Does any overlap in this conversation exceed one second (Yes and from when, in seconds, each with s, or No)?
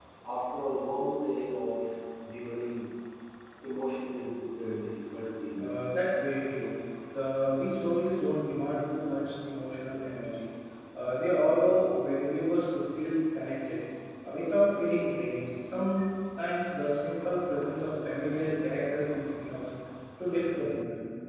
No